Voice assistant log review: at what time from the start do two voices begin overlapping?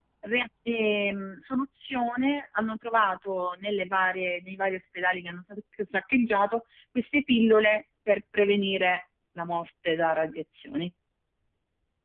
none

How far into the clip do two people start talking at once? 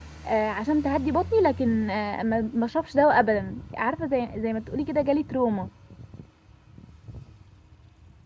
none

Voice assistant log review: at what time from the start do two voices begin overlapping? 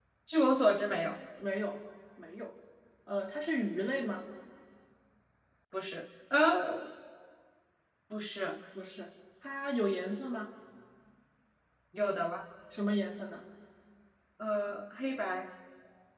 none

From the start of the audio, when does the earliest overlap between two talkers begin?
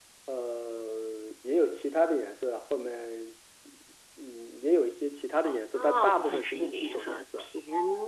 5.4 s

